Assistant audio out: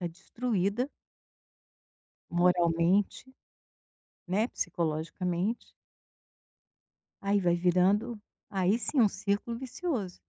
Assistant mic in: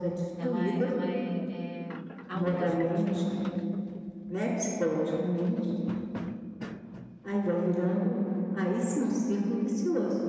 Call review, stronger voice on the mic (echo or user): echo